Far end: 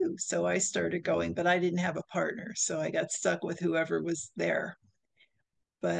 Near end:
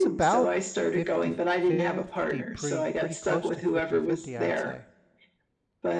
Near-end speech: present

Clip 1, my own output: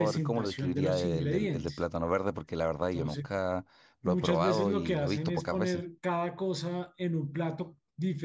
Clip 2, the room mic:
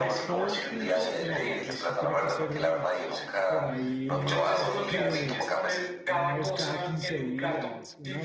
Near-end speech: present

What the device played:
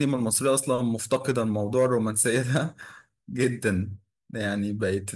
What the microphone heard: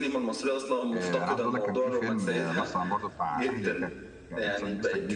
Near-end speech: present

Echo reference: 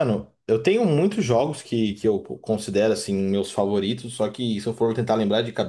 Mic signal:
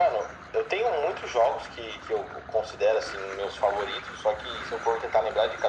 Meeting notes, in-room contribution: none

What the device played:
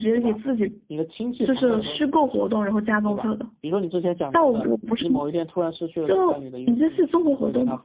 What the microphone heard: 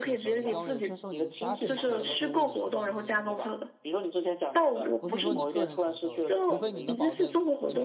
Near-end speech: present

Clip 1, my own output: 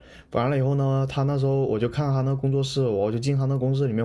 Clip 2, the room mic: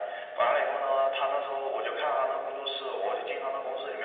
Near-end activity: none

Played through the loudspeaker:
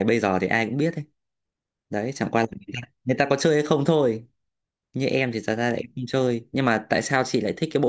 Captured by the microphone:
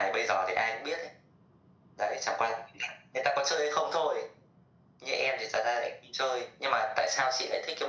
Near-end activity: none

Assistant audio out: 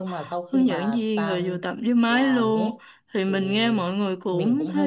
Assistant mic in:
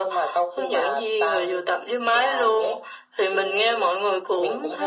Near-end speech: none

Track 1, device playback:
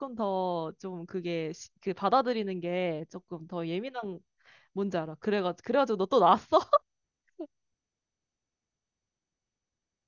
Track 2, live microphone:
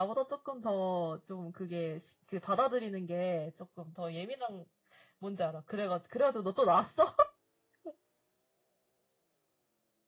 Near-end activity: none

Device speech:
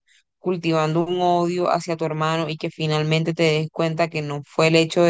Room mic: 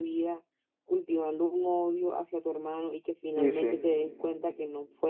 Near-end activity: present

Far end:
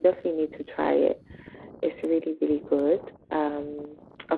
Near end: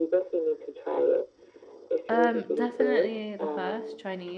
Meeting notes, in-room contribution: present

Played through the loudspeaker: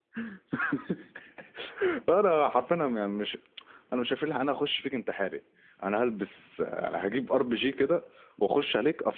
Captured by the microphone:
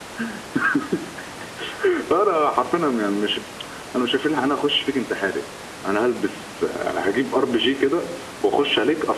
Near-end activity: none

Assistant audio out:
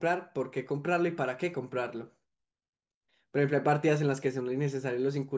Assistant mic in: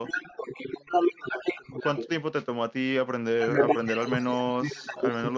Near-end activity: present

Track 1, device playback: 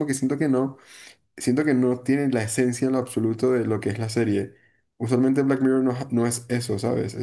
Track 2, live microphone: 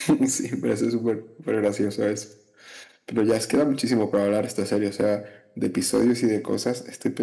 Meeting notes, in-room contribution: present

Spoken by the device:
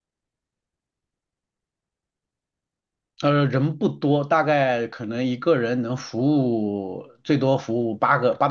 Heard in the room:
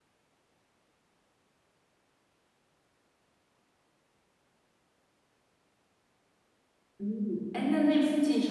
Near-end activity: present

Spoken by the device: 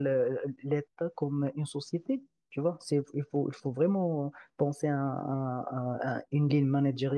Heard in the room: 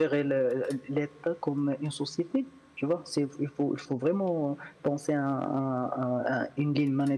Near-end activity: none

